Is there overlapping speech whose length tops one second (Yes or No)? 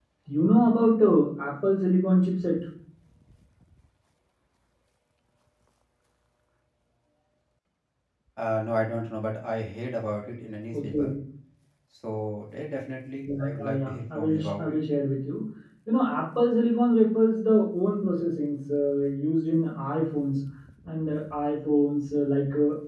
Yes